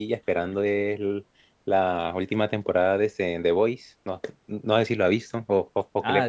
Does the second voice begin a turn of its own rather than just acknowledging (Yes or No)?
Yes